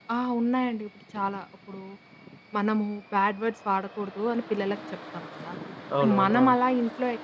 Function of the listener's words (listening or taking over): listening